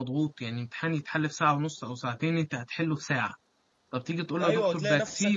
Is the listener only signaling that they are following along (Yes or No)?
No